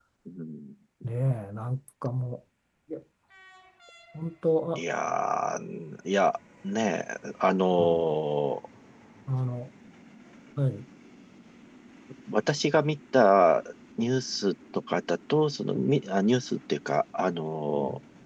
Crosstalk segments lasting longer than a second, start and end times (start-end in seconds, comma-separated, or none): none